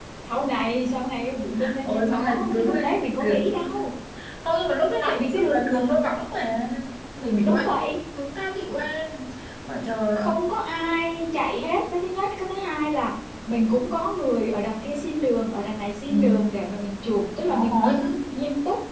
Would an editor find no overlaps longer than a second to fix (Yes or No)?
No